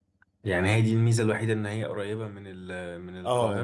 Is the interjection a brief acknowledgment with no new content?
No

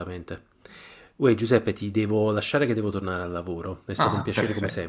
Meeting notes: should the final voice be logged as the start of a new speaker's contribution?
Yes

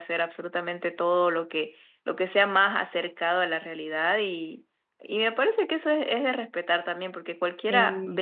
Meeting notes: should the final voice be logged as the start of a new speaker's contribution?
No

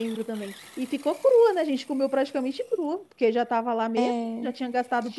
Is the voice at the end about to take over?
No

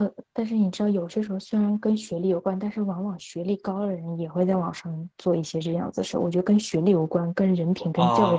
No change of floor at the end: No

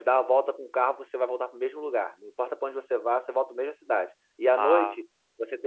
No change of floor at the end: Yes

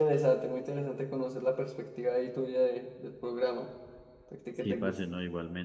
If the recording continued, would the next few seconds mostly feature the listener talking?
Yes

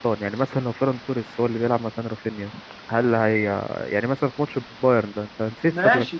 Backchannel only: No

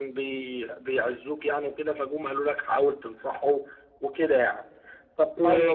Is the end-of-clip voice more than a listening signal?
No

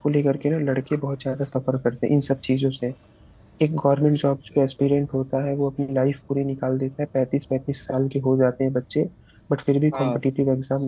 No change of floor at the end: Yes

